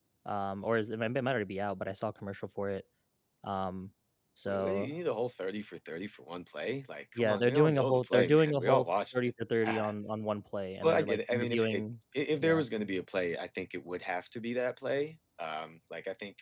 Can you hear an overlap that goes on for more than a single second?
Yes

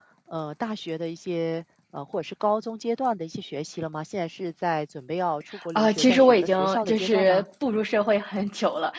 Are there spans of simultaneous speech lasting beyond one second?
Yes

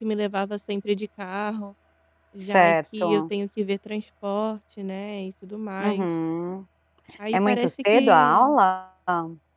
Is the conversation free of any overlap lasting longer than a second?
No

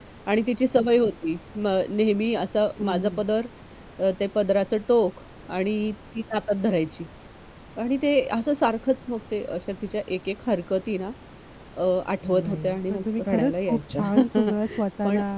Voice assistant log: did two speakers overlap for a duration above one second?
Yes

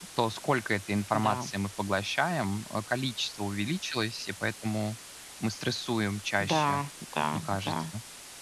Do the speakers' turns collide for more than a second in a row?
No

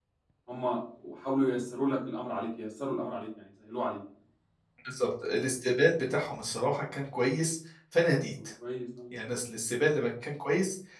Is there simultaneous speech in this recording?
No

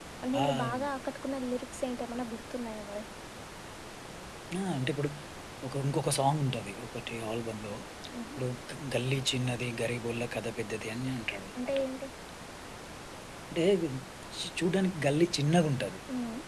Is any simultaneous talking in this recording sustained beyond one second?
No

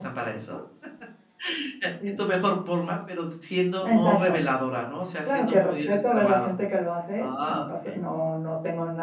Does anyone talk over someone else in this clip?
Yes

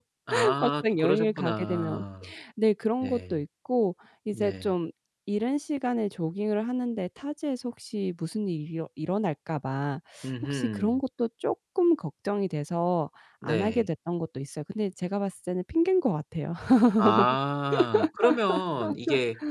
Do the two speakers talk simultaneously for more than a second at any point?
Yes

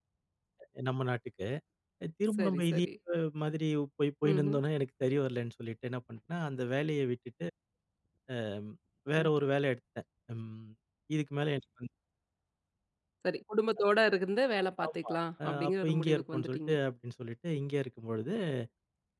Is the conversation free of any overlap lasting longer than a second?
No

